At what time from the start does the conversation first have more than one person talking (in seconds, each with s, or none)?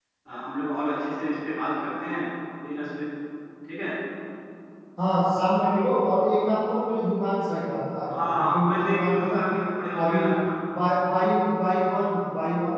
8.1 s